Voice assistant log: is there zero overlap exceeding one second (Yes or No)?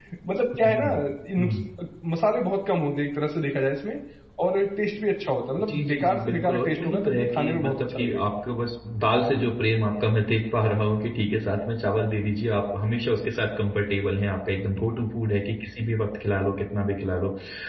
No